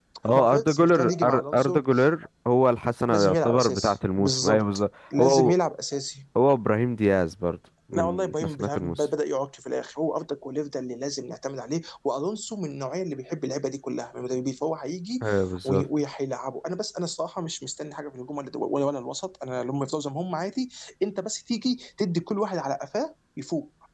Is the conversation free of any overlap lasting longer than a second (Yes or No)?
No